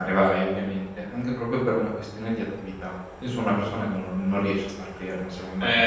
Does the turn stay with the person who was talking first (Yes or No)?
No